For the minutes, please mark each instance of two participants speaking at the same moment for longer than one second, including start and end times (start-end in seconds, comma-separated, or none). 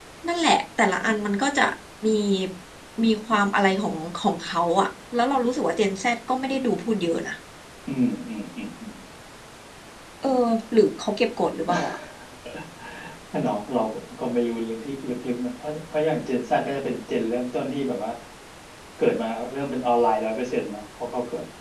none